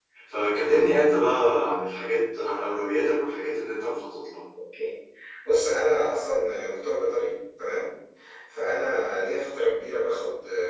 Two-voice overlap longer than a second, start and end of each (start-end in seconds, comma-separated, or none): none